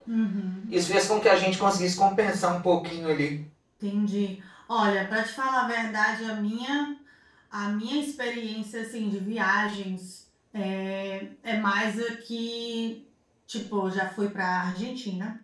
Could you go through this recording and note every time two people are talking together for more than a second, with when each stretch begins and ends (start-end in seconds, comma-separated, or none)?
none